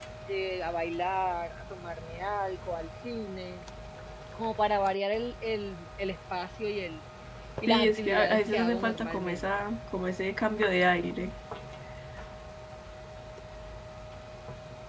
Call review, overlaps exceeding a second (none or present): present